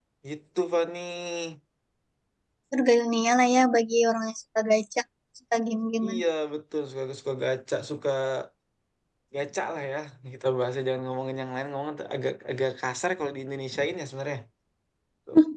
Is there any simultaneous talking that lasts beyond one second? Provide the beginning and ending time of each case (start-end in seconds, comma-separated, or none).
none